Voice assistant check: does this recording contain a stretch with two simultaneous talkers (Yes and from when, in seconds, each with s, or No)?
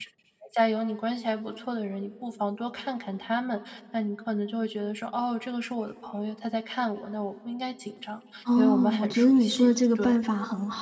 Yes, from 8.4 s